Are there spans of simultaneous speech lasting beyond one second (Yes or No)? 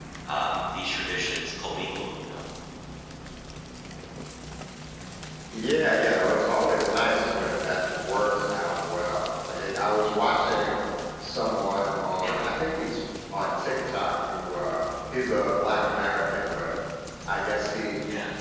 No